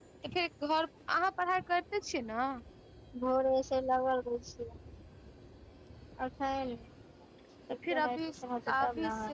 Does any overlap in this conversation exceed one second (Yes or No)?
Yes